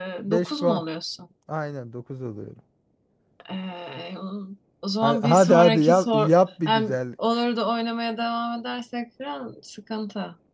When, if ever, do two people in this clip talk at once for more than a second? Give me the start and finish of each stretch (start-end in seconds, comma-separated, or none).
5.0-6.3